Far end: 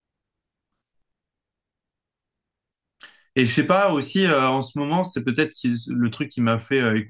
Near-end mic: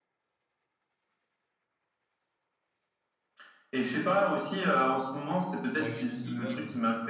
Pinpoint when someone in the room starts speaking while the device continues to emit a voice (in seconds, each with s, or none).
5.8 s